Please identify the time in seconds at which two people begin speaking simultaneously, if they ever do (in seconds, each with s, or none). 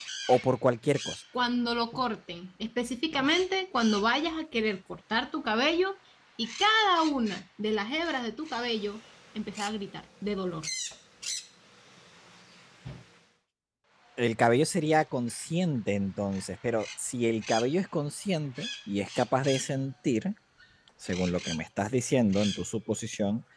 none